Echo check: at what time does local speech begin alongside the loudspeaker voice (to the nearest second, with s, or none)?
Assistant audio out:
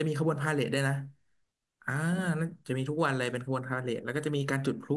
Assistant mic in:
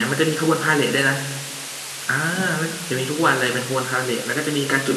none